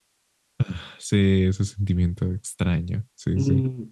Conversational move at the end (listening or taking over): taking over